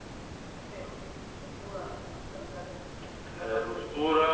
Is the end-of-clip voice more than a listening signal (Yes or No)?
Yes